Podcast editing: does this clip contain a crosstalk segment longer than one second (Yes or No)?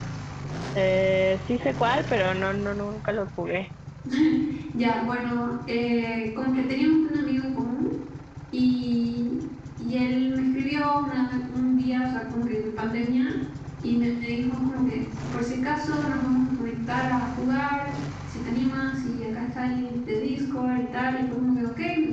No